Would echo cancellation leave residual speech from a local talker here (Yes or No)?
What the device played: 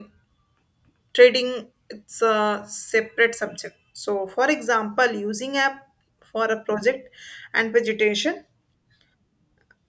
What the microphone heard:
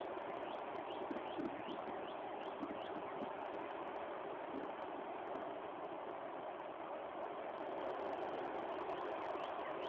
No